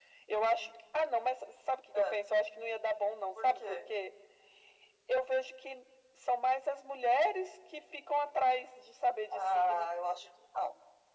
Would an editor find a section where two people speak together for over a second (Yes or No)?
No